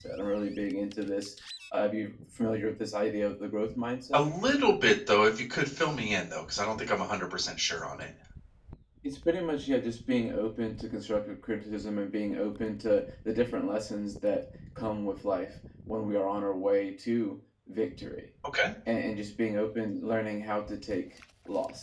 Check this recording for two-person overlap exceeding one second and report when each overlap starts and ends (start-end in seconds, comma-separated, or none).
none